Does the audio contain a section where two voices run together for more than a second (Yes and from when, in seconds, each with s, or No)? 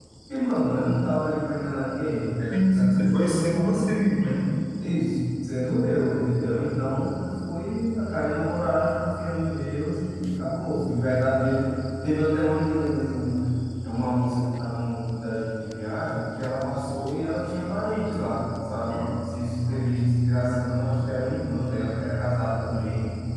Yes, from 2.5 s